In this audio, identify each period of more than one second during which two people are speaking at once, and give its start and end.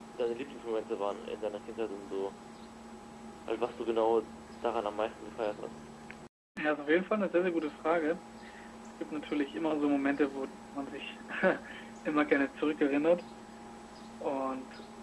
none

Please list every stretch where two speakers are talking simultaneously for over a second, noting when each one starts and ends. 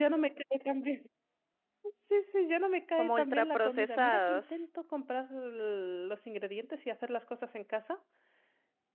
3.0-4.7

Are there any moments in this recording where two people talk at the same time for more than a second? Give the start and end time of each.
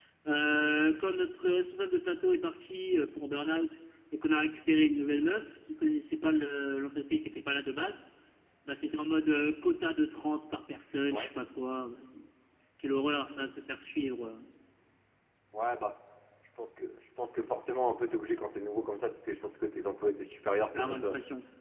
none

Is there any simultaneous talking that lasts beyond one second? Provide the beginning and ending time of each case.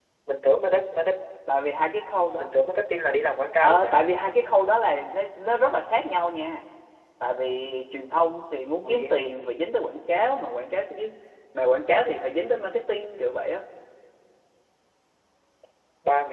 none

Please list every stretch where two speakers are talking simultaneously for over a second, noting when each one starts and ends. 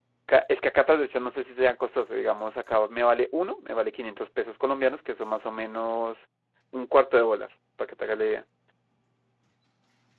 none

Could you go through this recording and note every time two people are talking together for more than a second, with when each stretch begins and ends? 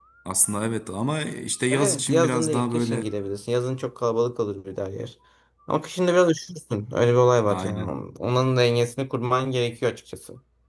1.7-3.1

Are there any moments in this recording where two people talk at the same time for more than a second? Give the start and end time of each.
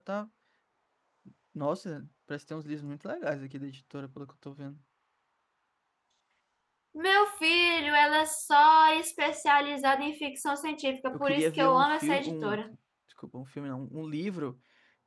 11.1-12.6

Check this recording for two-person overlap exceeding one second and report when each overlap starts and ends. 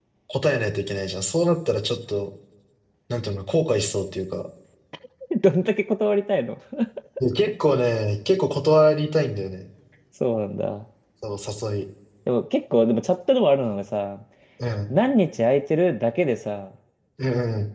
none

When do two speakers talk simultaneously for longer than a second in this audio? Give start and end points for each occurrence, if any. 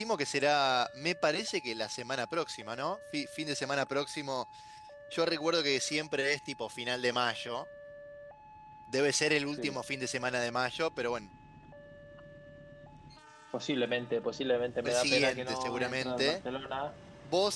14.8-16.4

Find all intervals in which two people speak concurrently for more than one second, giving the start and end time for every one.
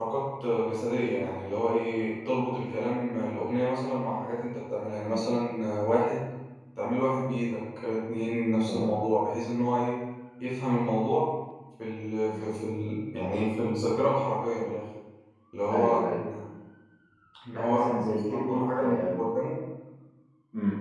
17.5-19.2

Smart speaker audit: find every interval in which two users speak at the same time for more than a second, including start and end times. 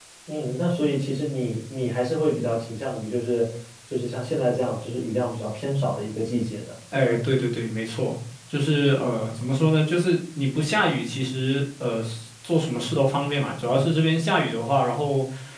none

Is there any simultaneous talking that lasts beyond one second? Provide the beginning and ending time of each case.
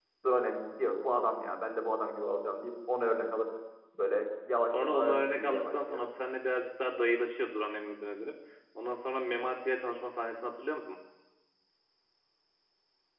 4.7-6.0

